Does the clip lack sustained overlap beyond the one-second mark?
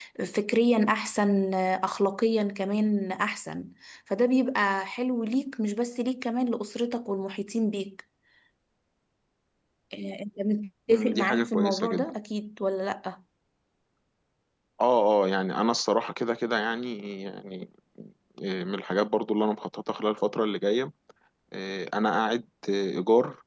No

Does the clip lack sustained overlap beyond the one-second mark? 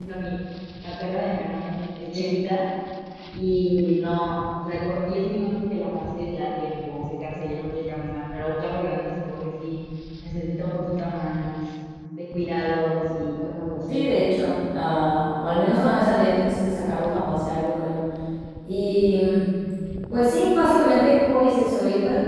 Yes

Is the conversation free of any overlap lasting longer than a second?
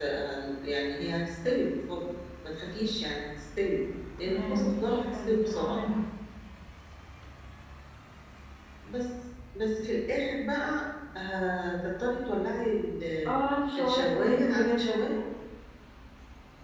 No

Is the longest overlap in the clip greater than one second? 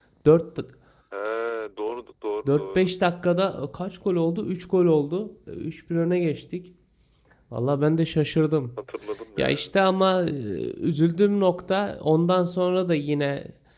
No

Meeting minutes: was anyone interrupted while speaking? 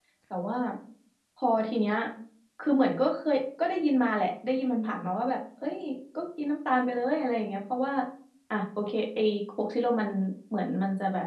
No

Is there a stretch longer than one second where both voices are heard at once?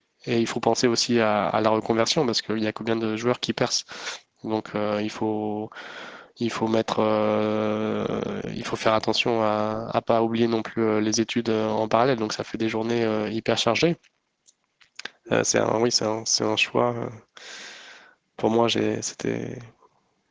No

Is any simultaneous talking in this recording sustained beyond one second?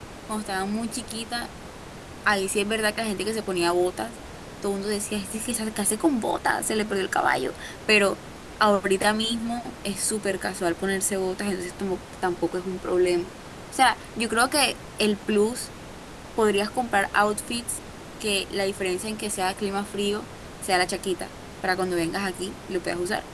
No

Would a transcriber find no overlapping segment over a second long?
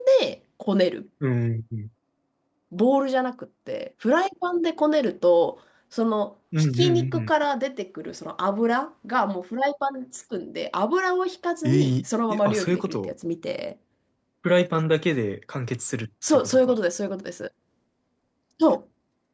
No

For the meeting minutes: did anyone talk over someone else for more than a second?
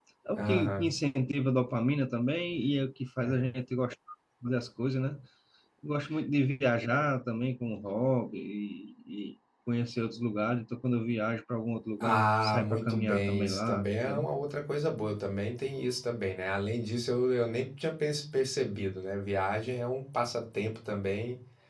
Yes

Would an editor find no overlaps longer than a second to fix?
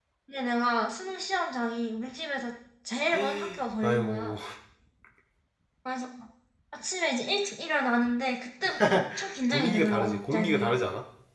No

